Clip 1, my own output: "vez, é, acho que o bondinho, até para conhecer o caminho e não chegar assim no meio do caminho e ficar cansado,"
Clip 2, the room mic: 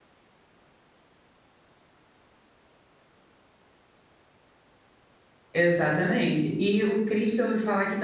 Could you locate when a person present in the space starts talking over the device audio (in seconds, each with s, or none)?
5.5 s